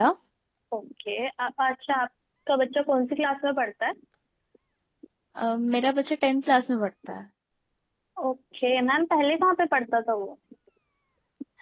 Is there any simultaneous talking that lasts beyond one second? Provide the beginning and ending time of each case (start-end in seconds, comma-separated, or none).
none